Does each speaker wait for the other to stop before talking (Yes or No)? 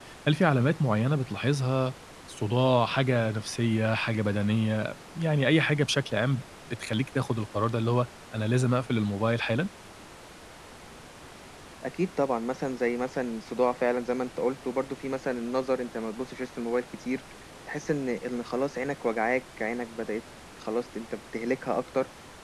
Yes